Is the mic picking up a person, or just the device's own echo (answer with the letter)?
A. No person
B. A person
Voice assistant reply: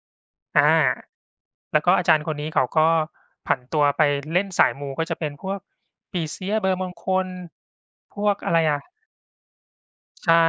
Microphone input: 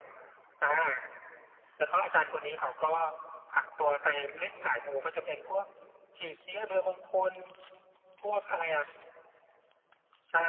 A